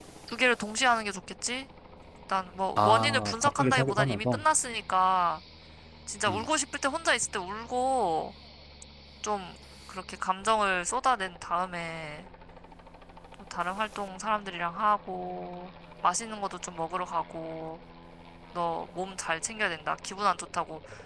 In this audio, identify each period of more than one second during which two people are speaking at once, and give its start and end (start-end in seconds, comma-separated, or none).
2.8-4.4